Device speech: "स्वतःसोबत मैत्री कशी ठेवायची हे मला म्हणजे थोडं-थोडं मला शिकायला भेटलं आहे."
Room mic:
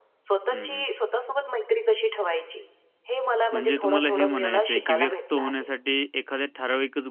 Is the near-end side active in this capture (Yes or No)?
Yes